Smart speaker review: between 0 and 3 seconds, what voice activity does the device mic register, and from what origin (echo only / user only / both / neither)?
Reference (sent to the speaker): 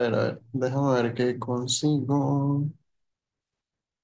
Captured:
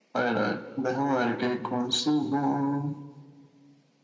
echo only